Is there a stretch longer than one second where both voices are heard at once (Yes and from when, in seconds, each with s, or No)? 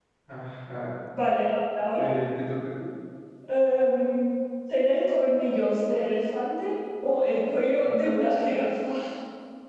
No